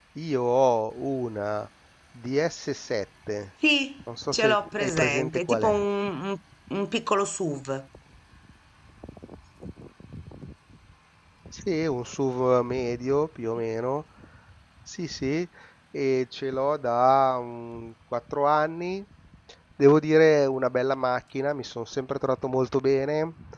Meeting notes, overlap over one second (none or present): present